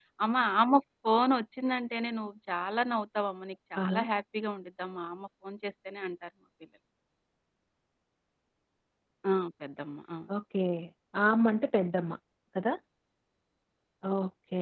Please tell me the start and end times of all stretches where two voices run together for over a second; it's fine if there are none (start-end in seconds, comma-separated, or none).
none